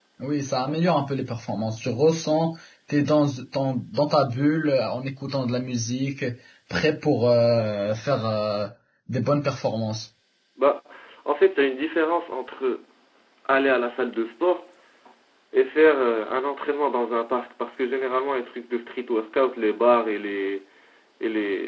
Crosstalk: none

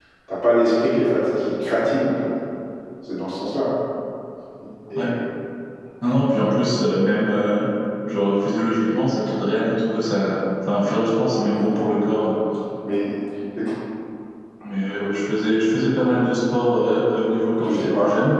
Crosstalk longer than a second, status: none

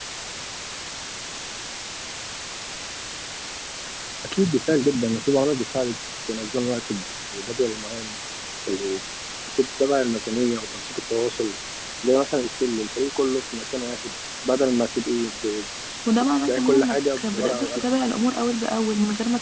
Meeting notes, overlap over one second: present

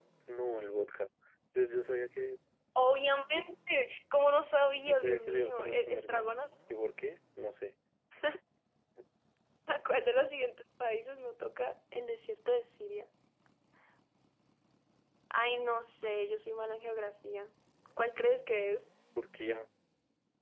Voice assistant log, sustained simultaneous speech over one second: present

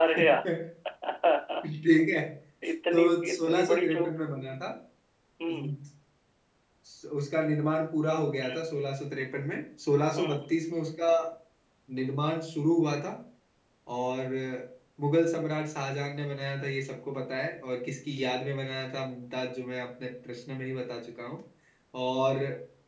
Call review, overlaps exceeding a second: present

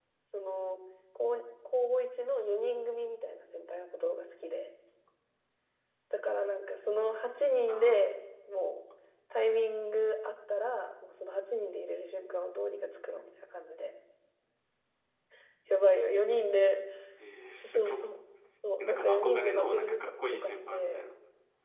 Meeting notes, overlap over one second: present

